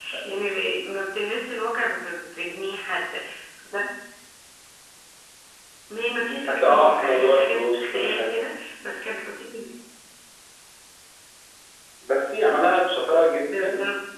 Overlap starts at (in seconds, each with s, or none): 6.4 s